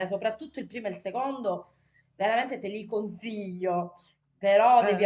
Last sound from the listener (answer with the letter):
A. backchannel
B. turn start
A